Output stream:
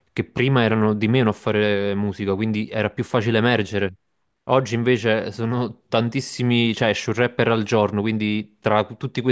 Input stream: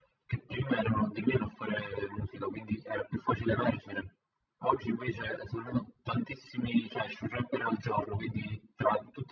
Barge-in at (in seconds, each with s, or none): none